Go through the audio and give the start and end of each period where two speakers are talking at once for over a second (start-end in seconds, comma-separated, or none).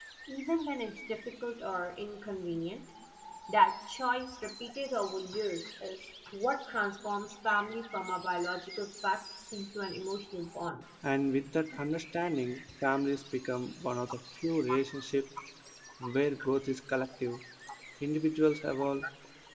none